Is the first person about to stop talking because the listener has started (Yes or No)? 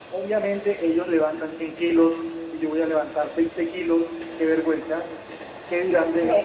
Yes